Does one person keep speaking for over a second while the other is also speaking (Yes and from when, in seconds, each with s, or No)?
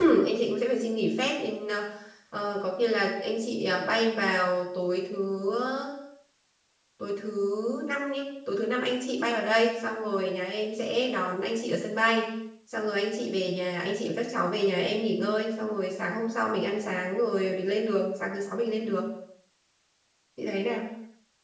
No